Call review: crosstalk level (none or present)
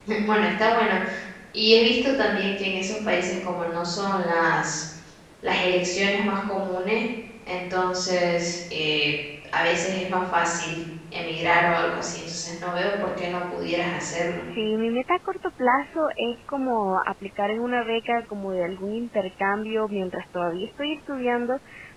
none